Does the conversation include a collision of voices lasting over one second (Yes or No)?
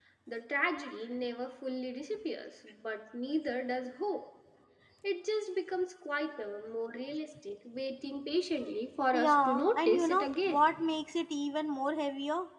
Yes